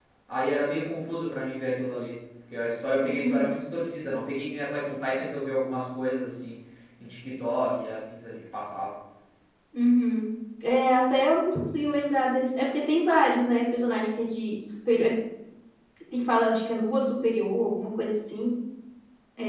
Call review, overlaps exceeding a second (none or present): none